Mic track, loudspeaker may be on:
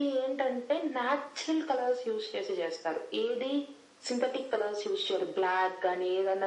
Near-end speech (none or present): none